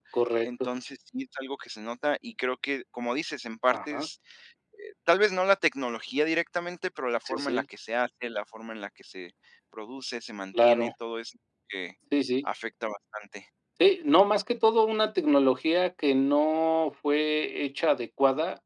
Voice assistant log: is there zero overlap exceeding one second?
Yes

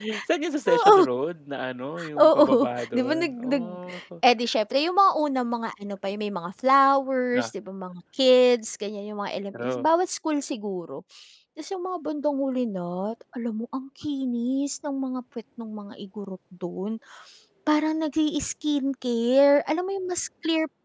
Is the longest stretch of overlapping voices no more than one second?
No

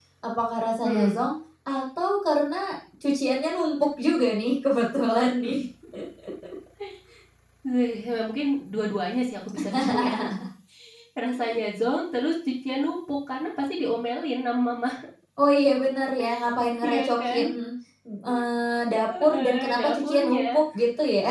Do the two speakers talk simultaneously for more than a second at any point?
Yes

